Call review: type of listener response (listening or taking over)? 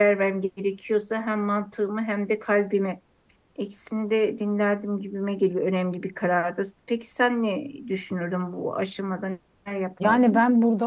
taking over